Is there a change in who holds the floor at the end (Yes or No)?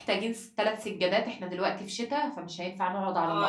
Yes